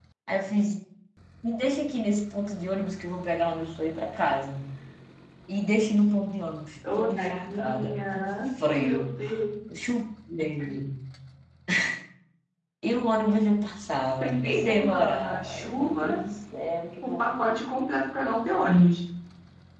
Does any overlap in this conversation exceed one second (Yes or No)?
Yes